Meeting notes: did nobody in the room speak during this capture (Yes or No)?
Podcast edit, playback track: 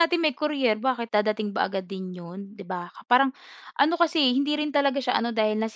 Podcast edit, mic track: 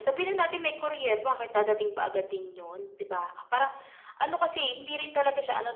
Yes